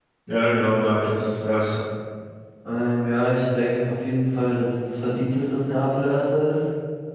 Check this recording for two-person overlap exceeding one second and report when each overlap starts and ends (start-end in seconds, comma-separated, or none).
none